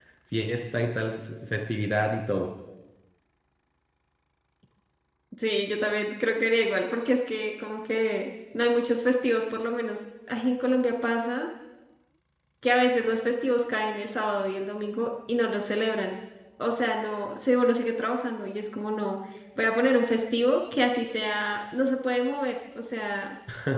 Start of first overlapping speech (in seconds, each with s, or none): none